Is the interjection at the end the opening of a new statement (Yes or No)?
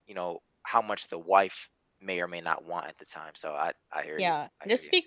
Yes